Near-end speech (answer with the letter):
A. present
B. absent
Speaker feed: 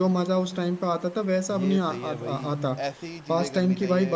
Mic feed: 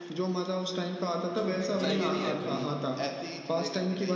A